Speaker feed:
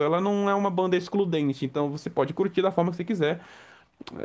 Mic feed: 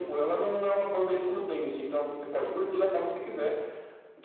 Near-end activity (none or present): none